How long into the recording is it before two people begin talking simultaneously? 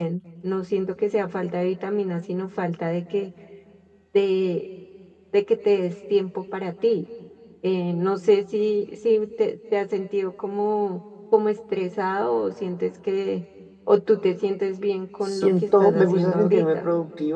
15.2 s

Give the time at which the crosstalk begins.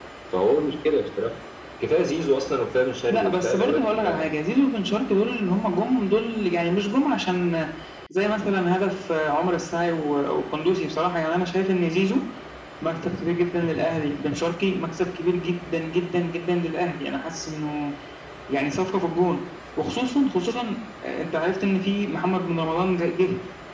3.1 s

